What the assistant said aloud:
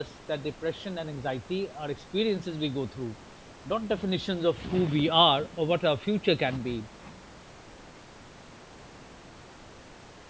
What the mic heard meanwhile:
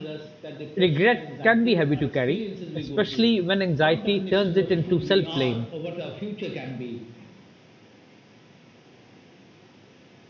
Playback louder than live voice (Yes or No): No